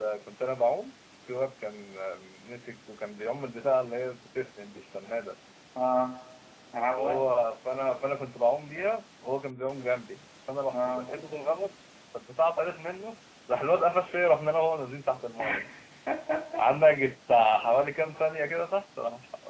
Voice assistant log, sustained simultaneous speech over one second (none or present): none